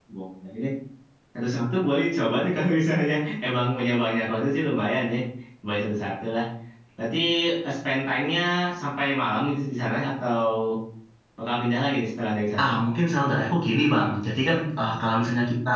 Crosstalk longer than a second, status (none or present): none